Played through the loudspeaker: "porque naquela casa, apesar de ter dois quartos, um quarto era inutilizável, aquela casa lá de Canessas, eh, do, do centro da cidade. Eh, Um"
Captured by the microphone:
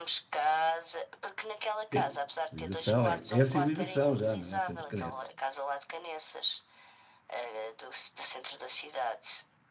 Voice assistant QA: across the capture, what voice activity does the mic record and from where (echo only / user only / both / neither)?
both